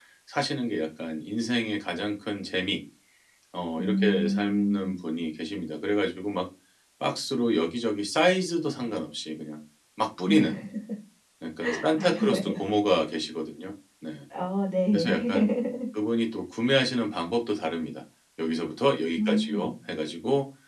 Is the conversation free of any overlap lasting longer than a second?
No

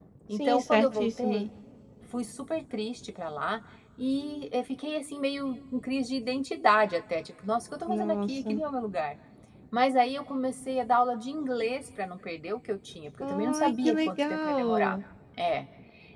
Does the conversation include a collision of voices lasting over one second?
Yes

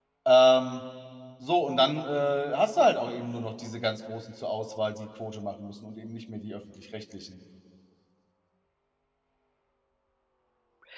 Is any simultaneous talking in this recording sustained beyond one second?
No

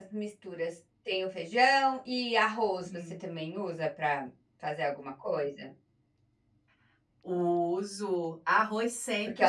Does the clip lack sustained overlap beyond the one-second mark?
Yes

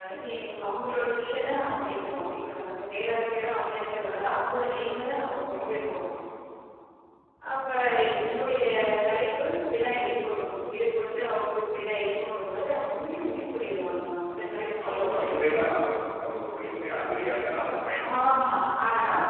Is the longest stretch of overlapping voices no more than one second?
Yes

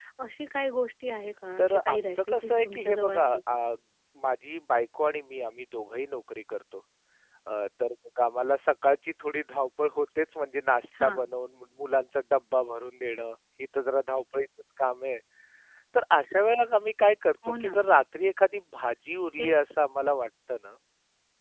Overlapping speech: Yes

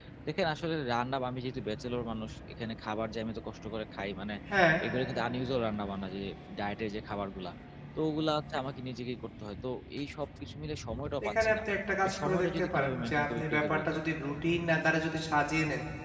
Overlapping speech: Yes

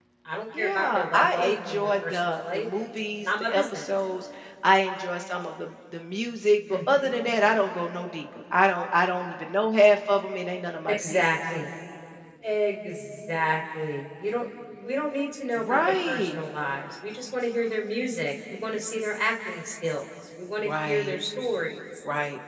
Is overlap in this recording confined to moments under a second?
No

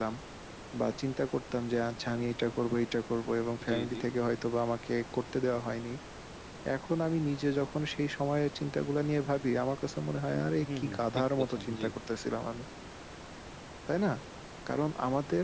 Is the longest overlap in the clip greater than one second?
Yes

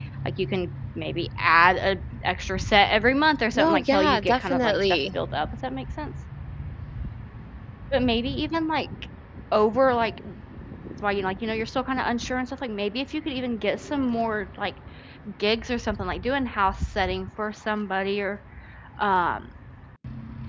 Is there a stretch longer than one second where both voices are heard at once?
Yes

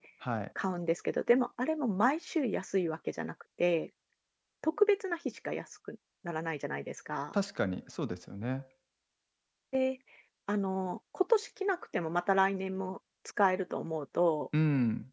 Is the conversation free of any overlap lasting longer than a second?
Yes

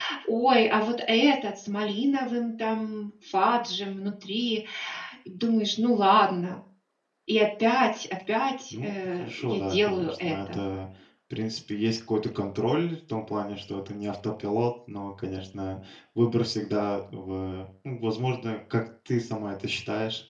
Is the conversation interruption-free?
No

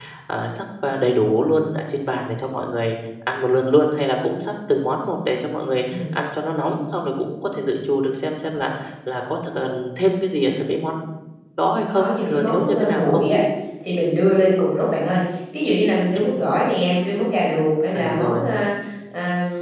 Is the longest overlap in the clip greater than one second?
Yes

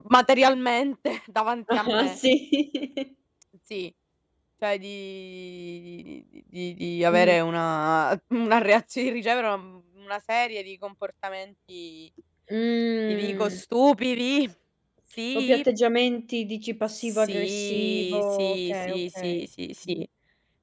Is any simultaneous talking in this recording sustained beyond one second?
Yes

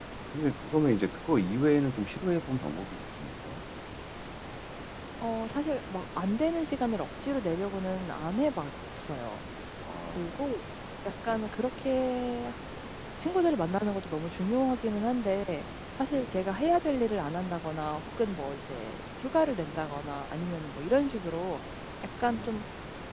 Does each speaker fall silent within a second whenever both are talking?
Yes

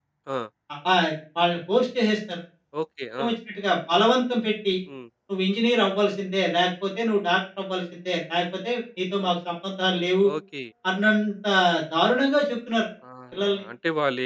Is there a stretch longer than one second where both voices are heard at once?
No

